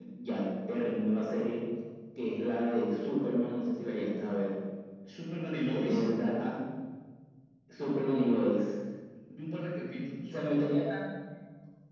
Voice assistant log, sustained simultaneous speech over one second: none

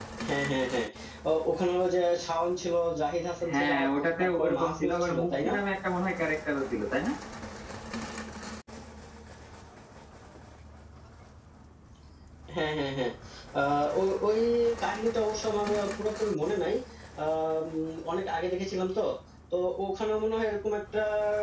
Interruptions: present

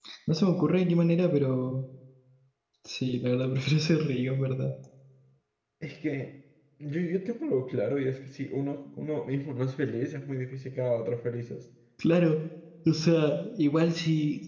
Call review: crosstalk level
none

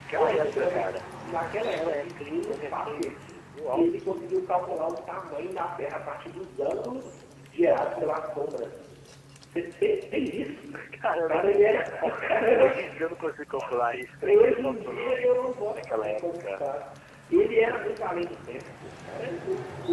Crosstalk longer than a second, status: present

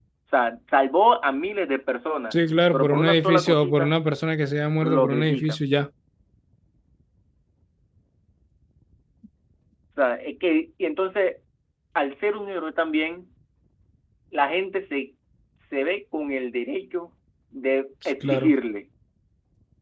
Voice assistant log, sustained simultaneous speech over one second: present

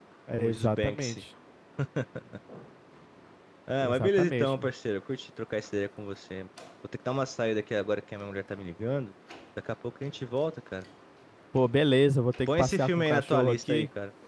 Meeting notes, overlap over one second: present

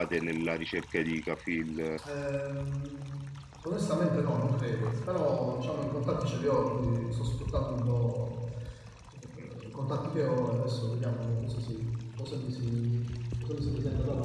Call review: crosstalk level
none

